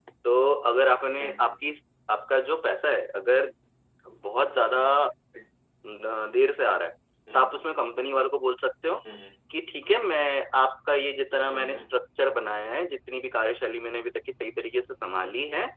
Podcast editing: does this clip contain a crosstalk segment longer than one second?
No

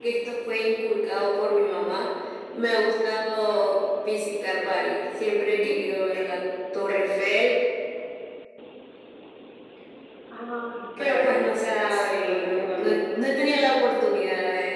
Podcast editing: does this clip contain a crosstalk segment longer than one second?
Yes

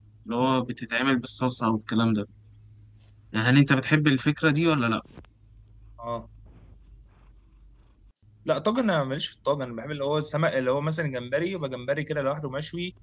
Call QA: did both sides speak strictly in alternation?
Yes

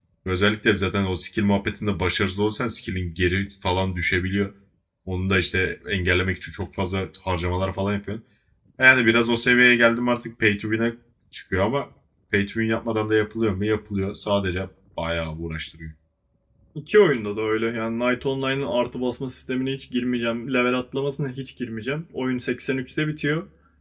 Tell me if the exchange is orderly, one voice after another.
Yes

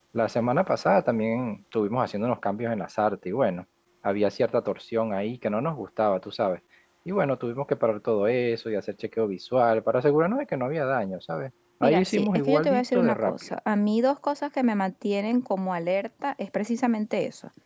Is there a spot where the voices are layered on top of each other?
Yes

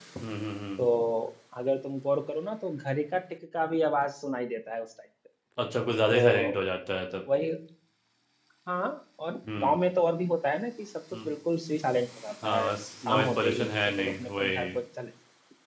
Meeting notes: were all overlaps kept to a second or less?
No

